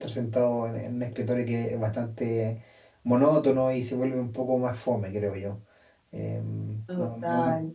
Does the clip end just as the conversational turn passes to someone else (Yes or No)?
No